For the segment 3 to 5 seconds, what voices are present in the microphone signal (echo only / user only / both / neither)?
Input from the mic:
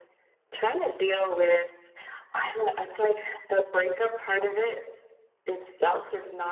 echo only